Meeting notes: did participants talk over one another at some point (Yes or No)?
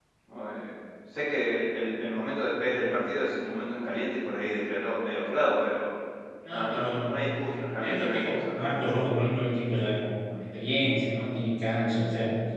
Yes